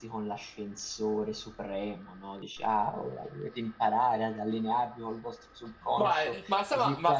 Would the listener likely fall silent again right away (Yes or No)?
No